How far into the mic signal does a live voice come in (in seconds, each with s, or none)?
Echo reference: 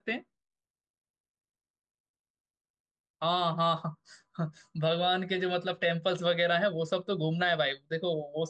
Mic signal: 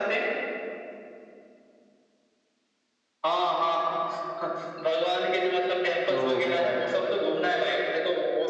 6.1 s